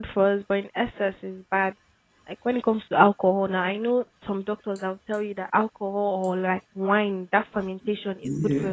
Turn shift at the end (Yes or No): No